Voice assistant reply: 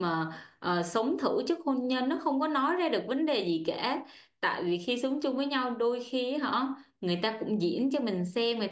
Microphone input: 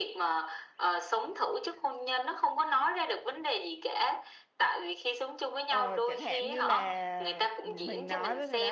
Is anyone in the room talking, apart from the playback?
Yes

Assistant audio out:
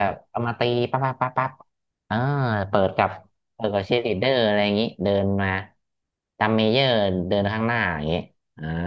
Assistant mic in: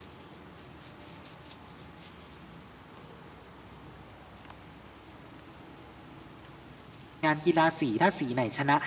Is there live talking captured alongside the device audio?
Yes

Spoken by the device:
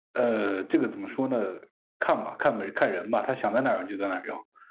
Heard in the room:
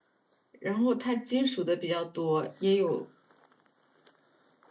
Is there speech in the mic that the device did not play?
Yes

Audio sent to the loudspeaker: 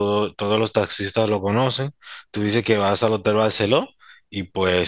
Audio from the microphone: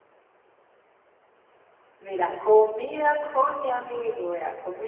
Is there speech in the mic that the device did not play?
Yes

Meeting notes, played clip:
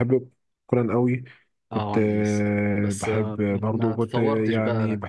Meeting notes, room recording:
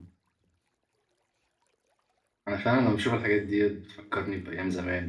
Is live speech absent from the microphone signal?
No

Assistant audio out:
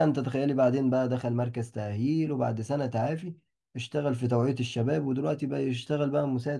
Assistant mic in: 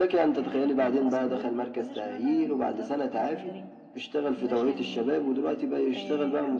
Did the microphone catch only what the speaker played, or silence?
No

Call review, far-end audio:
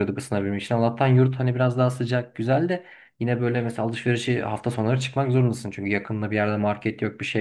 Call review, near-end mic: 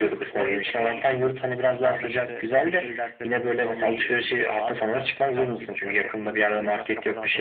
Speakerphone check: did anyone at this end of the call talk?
Yes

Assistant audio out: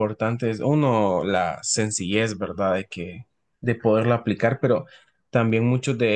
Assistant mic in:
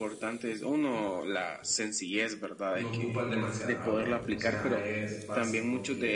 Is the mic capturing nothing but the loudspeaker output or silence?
No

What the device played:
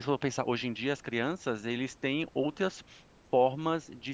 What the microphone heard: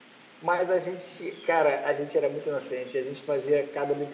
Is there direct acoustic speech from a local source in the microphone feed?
Yes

